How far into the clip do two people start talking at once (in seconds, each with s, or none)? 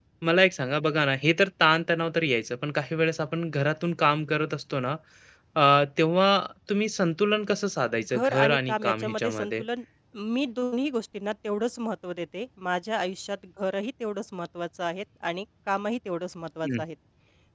8.1 s